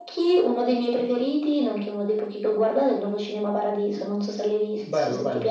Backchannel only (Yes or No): No